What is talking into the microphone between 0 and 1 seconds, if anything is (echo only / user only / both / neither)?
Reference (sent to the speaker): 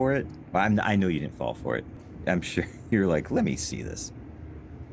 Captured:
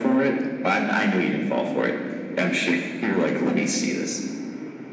echo only